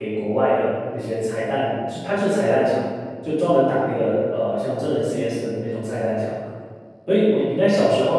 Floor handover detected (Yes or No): No